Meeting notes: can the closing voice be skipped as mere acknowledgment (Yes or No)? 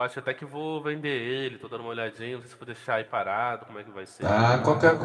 No